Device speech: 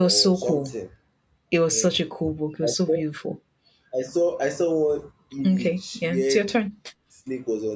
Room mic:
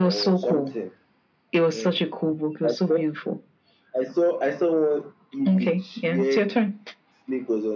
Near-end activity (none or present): none